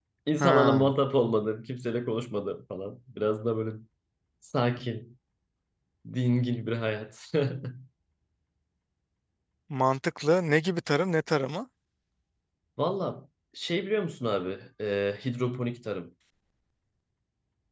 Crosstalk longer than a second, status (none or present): none